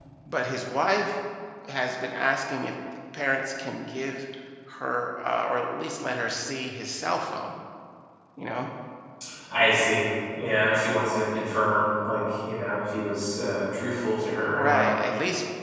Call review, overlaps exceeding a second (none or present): none